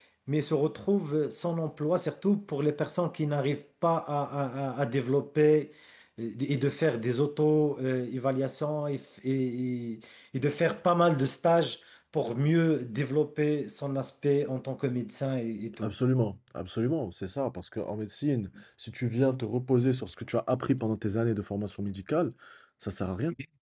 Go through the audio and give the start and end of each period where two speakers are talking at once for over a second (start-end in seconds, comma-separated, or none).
none